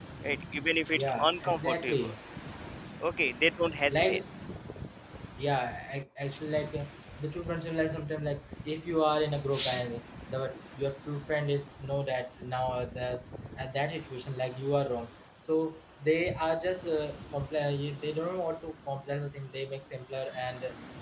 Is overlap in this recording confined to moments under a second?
No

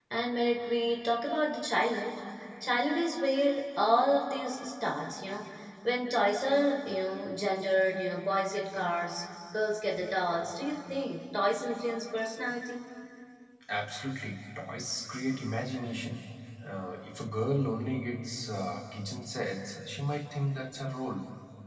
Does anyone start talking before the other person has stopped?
No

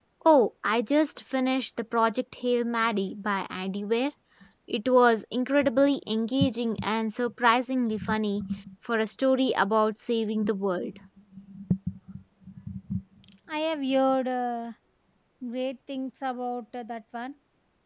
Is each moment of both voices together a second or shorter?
Yes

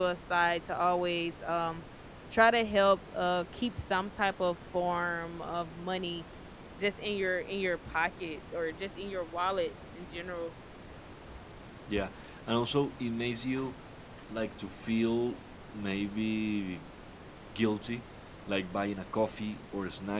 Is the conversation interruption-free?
Yes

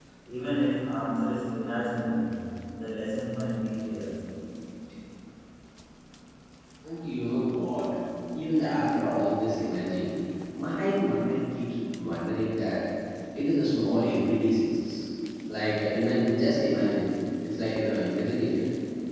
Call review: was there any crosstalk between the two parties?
No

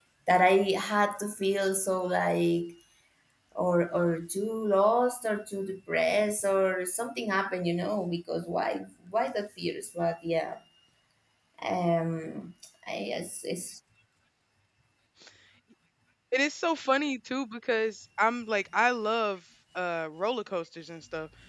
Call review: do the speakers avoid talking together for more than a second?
Yes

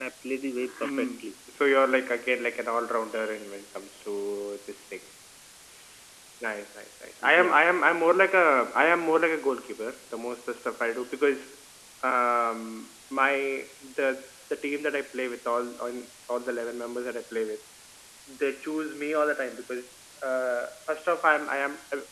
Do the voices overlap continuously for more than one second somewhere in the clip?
No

